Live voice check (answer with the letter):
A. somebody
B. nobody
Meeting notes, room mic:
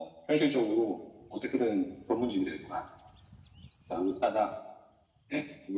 B